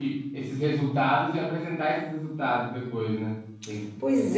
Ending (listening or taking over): taking over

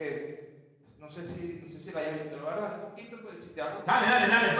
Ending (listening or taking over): taking over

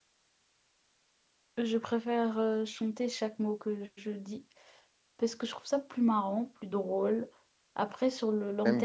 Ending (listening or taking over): taking over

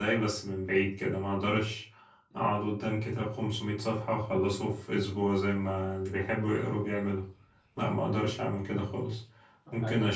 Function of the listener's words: listening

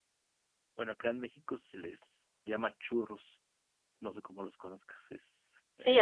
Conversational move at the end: taking over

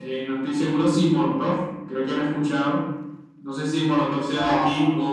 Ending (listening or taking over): listening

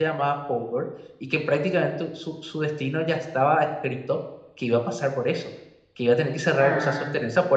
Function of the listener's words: listening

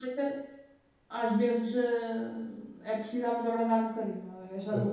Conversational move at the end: listening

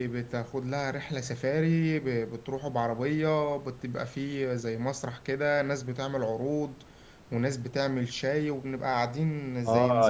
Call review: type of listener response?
taking over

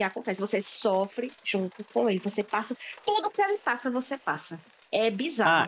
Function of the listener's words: taking over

